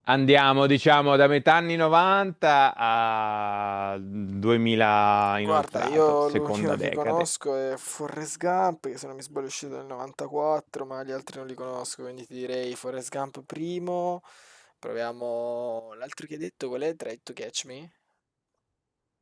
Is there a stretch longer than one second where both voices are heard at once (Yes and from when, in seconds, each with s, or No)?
Yes, from 5.5 s